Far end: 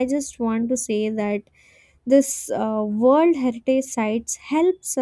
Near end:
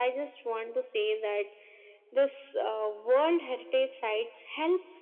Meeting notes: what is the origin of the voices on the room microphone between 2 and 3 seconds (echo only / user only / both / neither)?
echo only